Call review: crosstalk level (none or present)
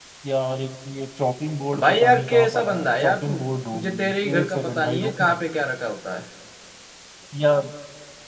present